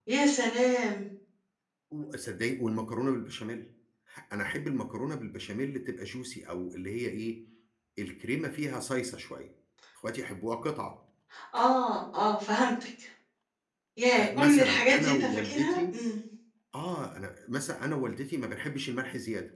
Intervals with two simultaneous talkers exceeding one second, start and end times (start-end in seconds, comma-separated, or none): 14.2-15.9